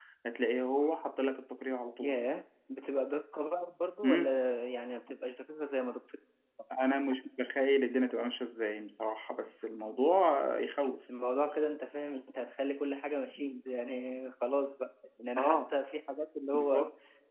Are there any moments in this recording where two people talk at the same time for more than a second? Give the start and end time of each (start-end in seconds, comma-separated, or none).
none